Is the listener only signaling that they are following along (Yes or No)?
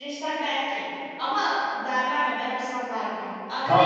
Yes